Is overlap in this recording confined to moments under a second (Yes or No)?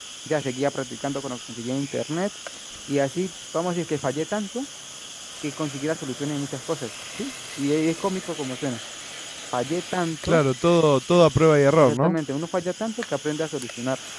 Yes